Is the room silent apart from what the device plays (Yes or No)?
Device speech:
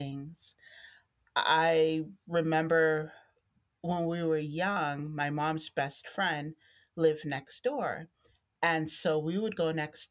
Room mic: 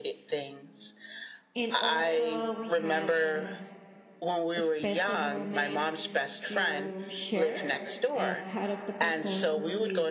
No